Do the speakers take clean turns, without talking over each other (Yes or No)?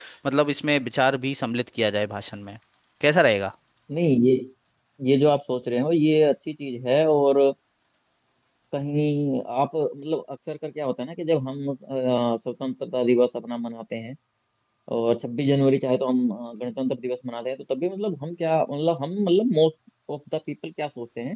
Yes